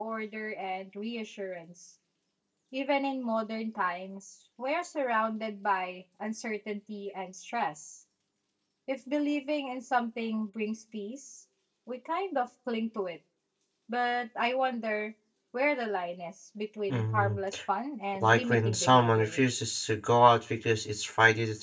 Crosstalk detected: Yes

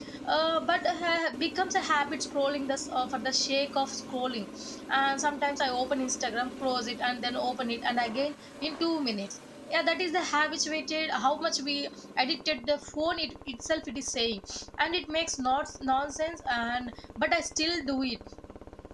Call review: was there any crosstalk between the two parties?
No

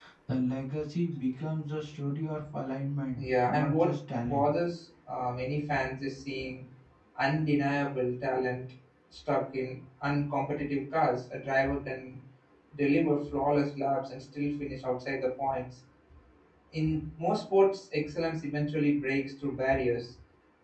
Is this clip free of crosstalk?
No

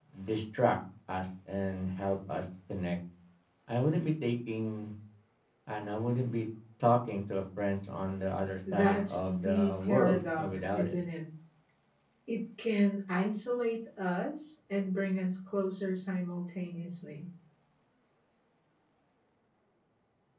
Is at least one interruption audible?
Yes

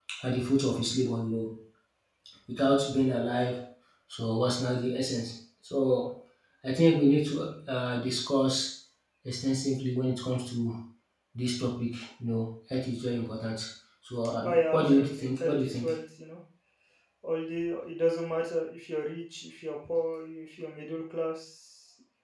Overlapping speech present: Yes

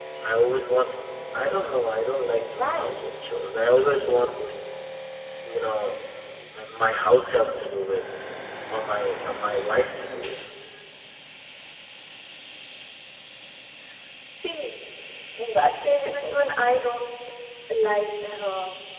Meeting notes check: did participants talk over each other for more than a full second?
No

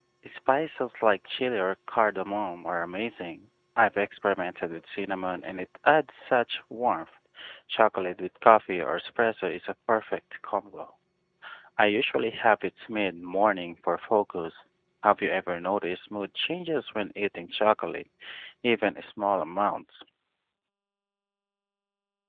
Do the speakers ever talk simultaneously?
No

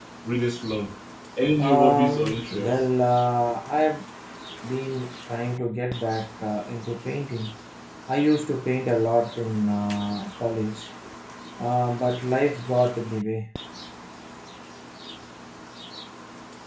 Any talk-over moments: Yes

